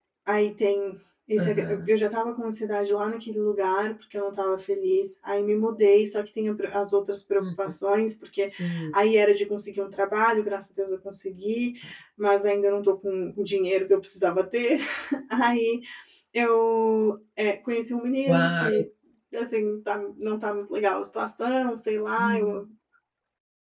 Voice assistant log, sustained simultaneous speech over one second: none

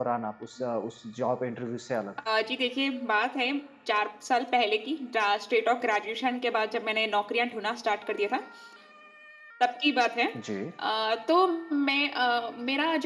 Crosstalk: none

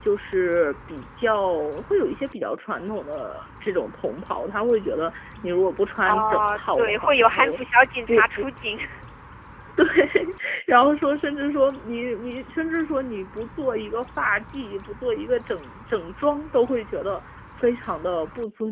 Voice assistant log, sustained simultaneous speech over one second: present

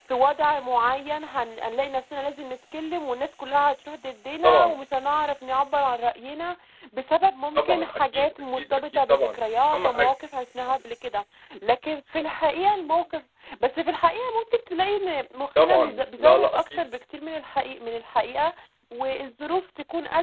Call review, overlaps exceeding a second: present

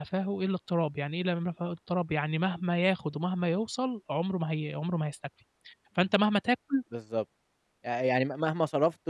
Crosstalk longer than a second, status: none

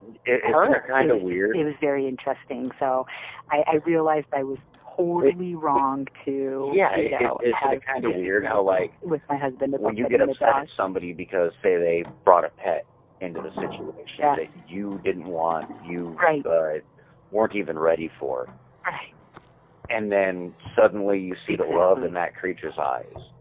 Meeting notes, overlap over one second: present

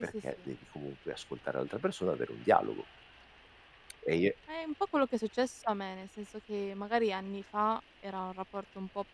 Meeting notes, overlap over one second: none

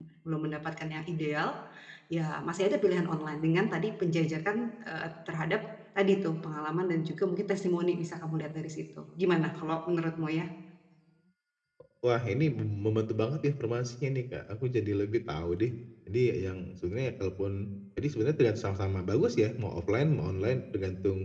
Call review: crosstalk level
none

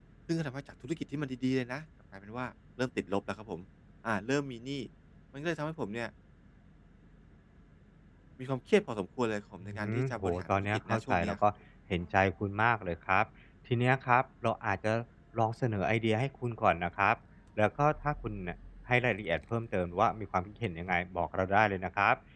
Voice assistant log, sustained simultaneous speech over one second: present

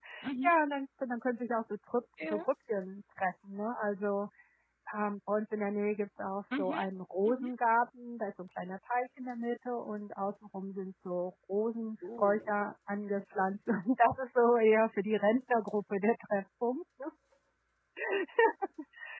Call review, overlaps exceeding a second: none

